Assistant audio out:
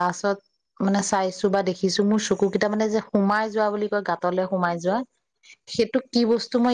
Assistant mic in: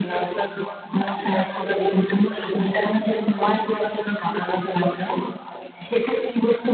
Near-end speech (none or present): none